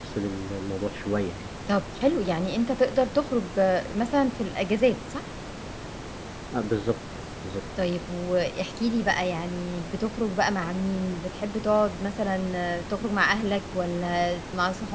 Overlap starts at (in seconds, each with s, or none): none